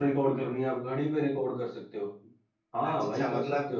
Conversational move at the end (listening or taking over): taking over